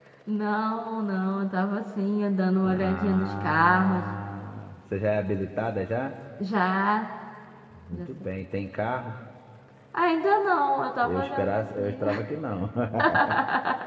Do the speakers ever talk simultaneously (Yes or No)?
Yes